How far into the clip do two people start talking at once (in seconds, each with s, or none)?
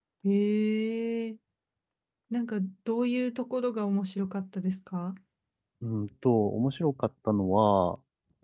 none